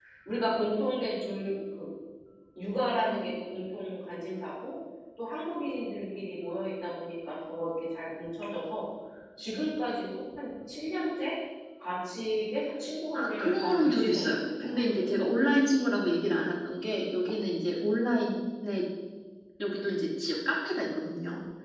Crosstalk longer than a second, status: present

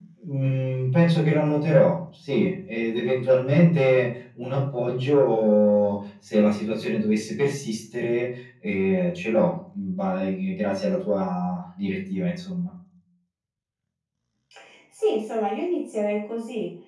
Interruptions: none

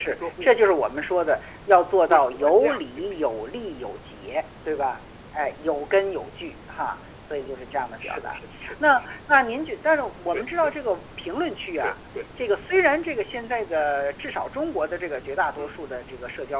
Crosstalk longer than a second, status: present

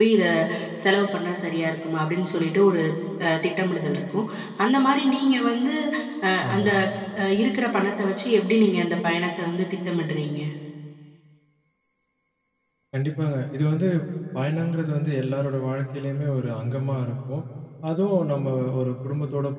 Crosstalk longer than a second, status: none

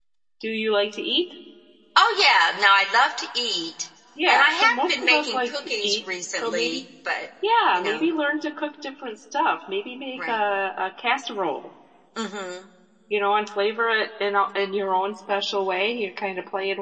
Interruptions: present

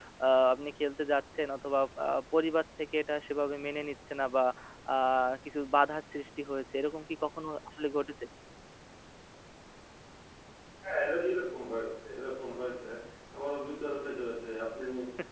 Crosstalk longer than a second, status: none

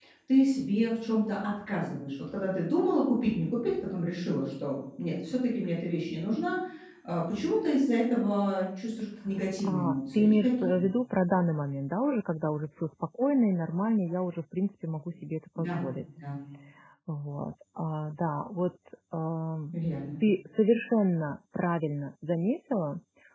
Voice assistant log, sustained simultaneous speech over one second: present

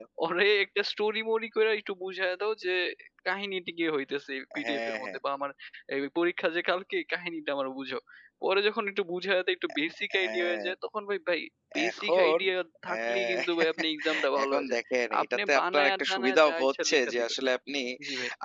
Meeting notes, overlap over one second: present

